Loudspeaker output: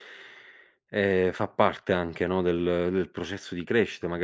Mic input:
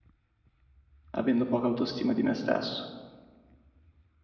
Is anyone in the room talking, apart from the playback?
Yes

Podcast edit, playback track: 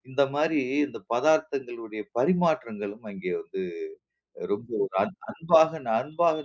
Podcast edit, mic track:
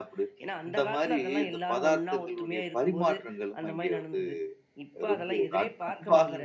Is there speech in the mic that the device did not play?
Yes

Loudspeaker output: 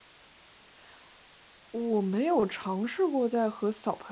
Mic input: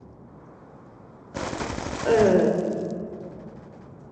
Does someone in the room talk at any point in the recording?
Yes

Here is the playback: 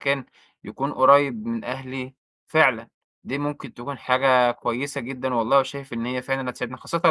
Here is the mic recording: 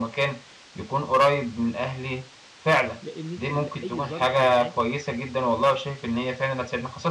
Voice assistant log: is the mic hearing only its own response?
No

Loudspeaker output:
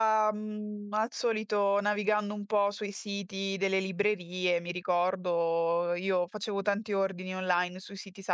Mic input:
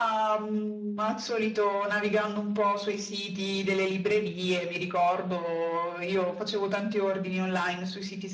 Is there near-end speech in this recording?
No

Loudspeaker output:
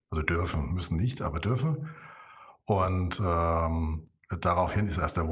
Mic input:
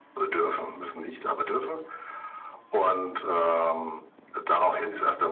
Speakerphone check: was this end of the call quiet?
Yes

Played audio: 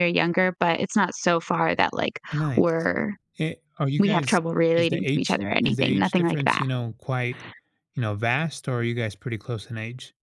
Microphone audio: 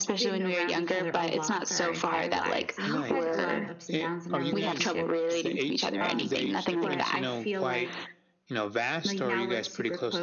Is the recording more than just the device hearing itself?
Yes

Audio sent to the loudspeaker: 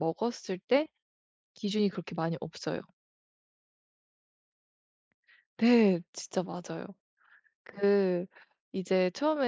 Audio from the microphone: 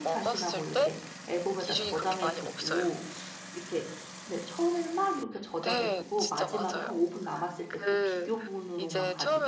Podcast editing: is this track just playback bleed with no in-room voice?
No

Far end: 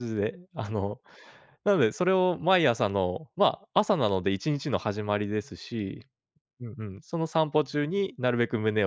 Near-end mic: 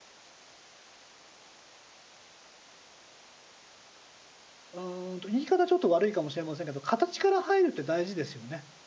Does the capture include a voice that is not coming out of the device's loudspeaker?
Yes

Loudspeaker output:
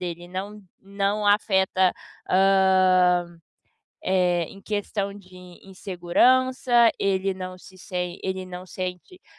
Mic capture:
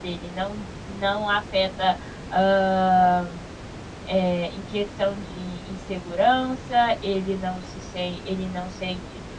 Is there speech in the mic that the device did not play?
No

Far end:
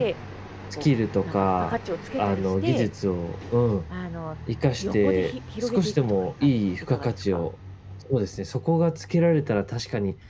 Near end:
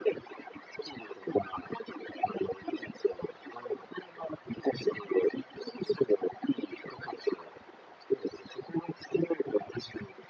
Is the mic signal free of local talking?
Yes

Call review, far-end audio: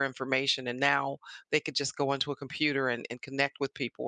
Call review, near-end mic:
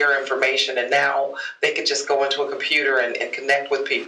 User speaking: No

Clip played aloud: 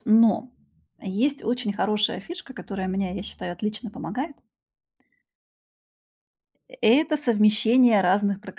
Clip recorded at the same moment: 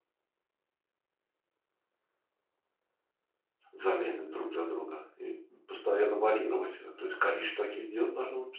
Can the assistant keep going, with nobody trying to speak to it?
No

